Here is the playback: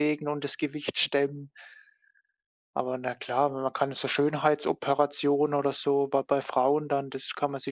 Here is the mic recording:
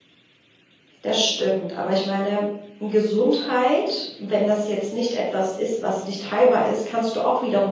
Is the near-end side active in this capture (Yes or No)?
Yes